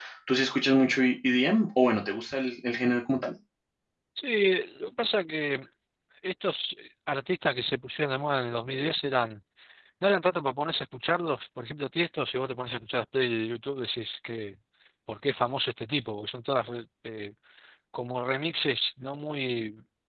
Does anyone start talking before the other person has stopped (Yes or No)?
No